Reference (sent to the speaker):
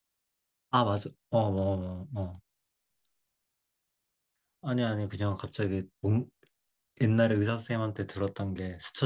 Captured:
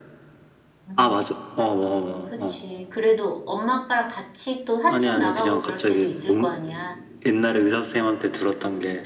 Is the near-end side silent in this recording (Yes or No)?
No